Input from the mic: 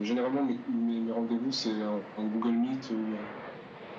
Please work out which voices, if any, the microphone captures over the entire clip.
echo only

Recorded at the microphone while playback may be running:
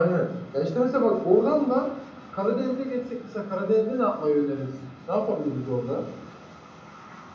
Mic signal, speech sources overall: echo only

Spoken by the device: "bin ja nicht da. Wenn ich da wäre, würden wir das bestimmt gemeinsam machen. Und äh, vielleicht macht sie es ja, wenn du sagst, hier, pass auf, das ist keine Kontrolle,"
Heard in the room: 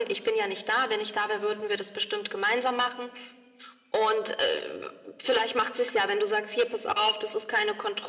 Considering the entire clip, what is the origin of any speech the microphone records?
echo only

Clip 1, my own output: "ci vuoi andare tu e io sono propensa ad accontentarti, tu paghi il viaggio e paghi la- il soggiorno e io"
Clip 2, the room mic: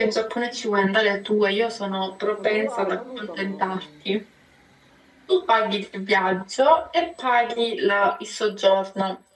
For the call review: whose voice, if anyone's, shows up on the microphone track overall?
both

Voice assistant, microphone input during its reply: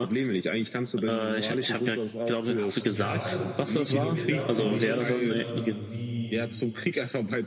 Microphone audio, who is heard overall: both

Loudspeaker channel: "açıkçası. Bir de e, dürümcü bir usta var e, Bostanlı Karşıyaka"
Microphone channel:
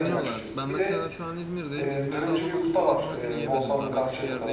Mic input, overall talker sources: both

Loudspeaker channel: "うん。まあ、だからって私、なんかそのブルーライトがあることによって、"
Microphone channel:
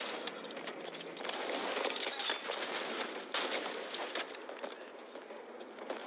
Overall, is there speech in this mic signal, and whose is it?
neither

